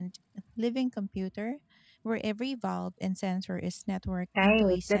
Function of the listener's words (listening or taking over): taking over